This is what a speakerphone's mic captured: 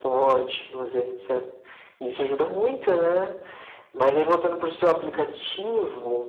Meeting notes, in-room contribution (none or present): none